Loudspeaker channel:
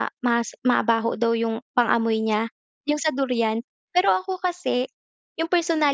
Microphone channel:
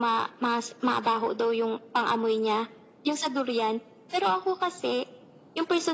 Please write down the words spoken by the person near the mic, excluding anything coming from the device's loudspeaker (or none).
none